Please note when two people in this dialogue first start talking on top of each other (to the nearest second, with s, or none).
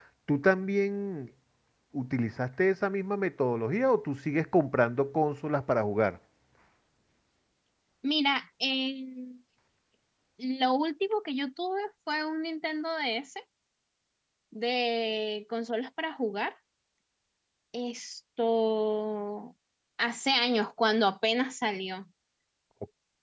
none